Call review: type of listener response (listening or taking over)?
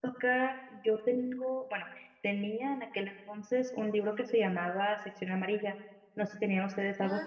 taking over